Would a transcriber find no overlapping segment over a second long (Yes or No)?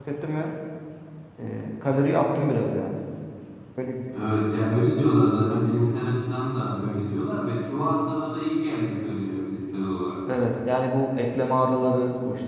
Yes